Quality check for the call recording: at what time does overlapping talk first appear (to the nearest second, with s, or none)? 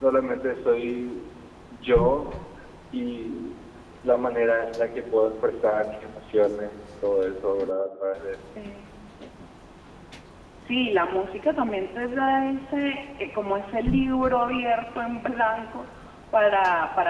none